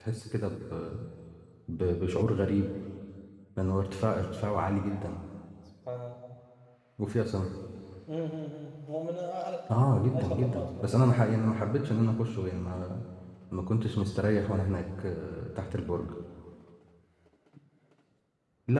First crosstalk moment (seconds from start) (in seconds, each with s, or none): 10.0 s